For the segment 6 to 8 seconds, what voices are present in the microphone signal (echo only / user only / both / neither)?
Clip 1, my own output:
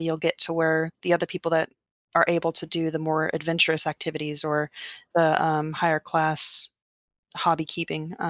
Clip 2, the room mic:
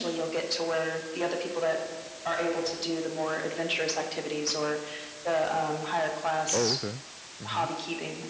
both